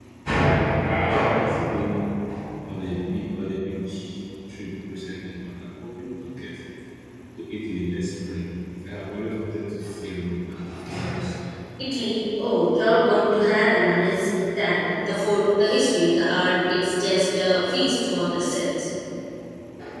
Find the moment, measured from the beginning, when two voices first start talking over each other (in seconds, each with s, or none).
none